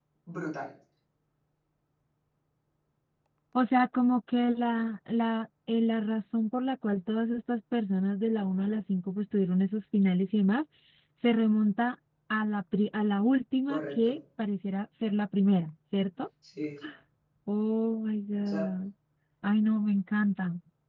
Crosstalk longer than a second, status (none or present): none